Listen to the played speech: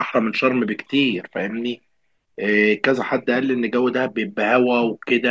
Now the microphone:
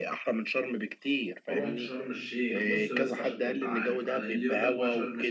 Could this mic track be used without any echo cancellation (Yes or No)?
No